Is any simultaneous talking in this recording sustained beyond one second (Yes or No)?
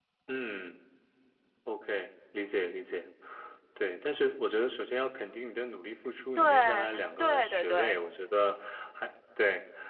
Yes